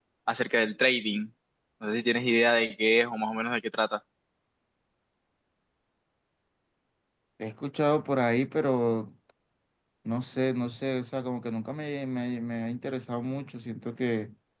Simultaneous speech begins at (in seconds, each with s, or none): none